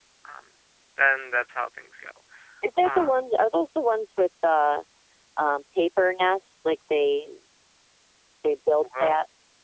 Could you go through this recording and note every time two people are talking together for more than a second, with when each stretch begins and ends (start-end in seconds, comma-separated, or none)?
none